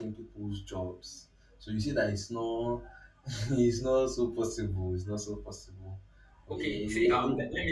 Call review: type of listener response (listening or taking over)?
taking over